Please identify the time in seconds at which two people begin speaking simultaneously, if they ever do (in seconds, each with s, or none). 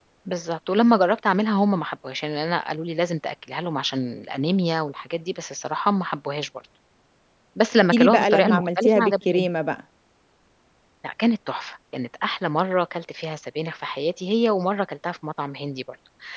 7.9 s